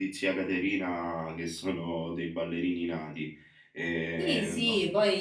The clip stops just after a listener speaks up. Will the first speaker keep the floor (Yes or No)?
No